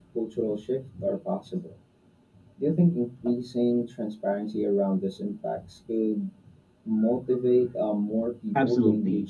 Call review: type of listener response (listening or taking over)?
taking over